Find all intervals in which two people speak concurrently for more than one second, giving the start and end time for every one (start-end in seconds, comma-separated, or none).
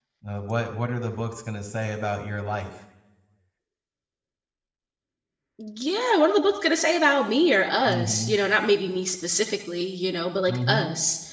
none